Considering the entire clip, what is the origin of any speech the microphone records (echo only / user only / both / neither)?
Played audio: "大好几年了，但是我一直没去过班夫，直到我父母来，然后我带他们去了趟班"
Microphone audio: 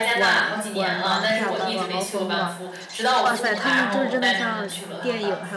both